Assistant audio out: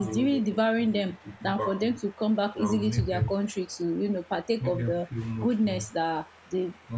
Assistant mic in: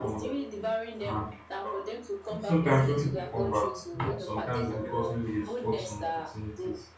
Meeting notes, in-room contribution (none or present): present